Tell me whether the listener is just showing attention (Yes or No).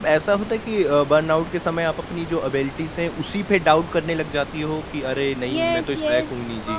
No